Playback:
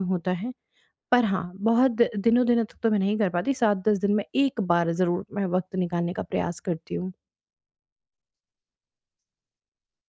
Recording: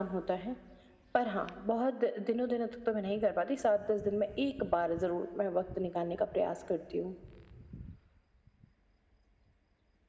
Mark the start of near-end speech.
none

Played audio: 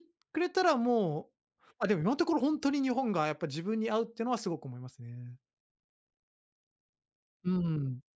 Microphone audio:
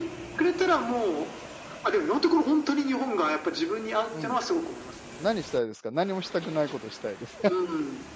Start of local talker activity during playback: 4.1 s

